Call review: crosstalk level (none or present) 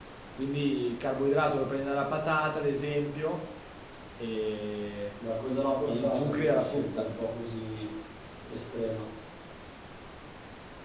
present